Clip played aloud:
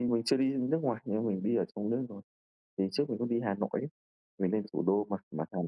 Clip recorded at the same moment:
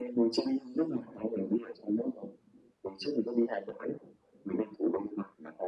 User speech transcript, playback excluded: none

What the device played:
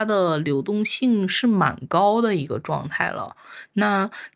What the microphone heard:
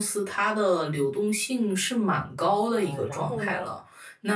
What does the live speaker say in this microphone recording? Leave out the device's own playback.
呃，然后呢，

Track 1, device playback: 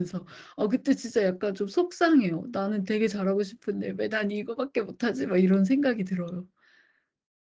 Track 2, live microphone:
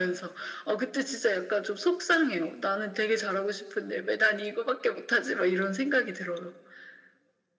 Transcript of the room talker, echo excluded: none

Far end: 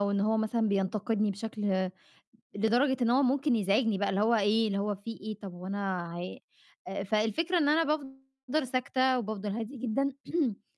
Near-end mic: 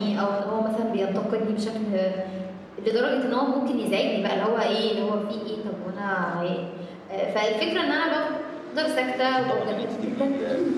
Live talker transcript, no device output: أكيد طبعًا إن أنتِ تبقي

